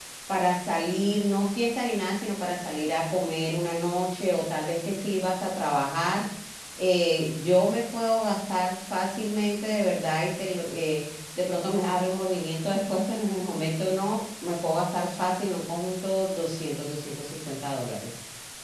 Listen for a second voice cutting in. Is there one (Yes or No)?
No